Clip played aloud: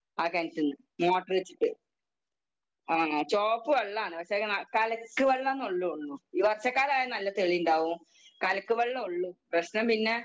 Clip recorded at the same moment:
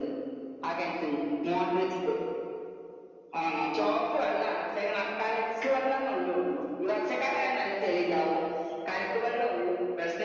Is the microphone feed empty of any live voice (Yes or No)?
Yes